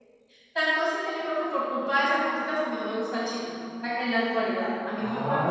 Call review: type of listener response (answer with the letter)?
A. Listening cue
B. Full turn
B